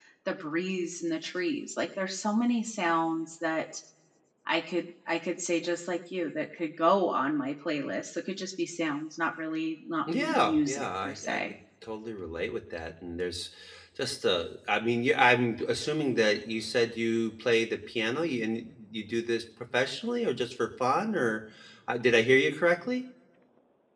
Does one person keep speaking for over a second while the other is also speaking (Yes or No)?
Yes